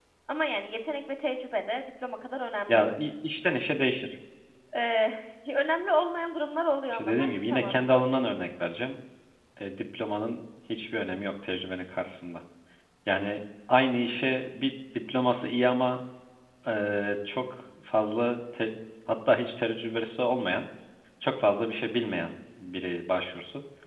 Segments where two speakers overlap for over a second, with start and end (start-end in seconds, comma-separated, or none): 6.9-8.2